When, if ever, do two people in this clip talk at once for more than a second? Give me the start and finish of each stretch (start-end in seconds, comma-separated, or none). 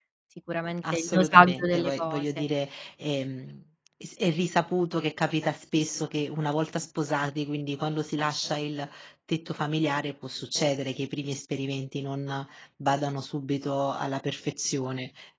0.9-2.2